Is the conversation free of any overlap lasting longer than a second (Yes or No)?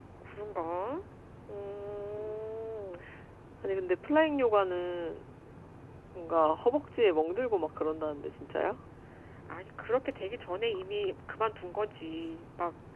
Yes